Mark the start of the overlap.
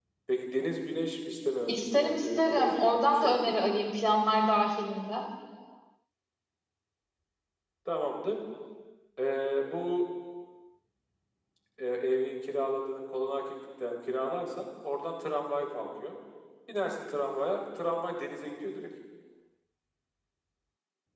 1.7 s

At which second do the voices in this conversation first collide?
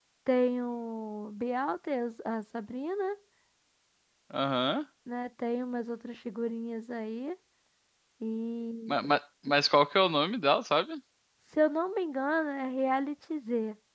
none

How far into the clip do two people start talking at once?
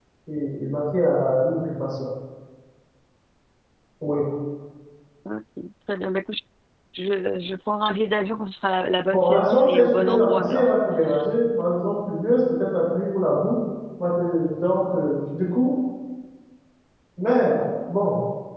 9.1 s

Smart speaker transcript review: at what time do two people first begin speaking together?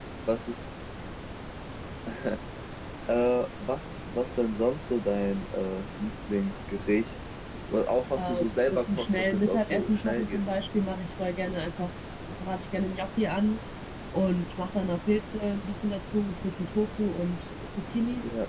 8.2 s

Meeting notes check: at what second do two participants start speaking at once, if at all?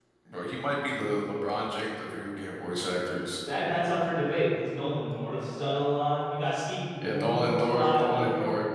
7.0 s

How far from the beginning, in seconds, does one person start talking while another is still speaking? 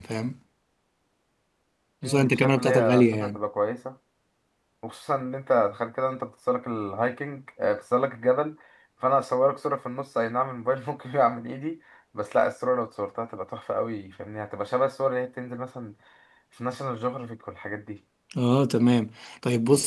2.0 s

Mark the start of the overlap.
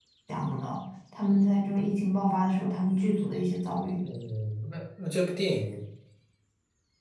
none

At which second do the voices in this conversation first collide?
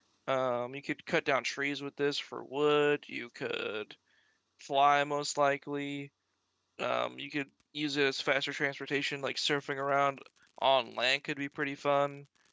none

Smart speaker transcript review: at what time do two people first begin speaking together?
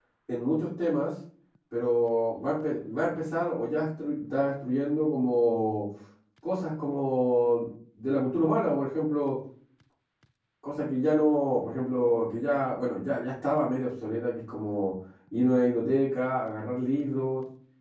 none

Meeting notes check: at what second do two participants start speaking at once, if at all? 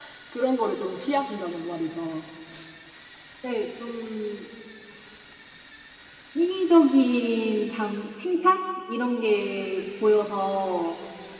none

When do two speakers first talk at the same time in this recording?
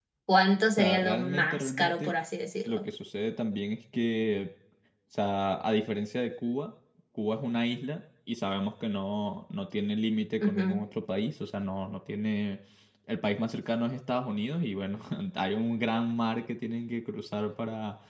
0.7 s

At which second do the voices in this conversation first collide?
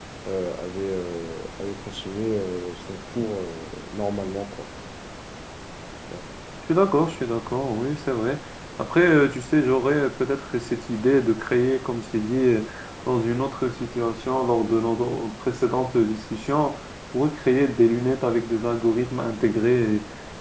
none

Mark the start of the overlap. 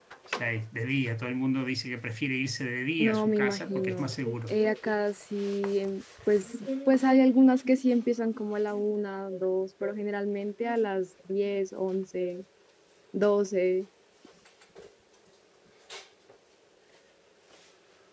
3.0 s

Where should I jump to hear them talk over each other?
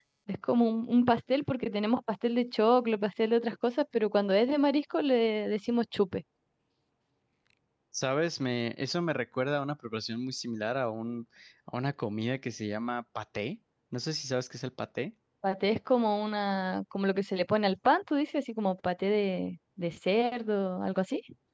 none

